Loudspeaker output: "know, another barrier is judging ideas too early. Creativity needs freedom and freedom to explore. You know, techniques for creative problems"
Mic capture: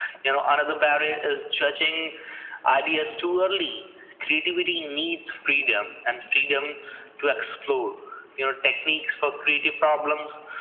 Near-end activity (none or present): none